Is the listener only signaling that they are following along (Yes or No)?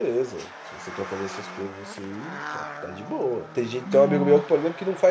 Yes